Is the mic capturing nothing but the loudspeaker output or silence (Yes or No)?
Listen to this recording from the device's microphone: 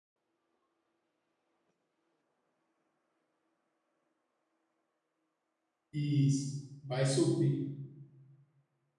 No